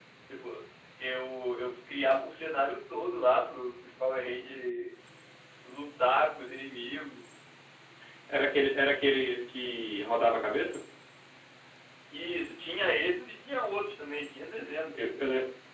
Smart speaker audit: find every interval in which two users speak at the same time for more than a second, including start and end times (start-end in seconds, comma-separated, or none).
none